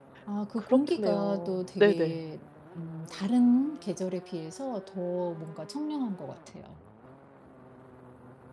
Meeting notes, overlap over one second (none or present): present